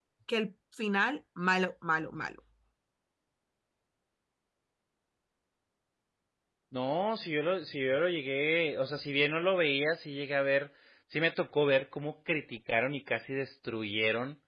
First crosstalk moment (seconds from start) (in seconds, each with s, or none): none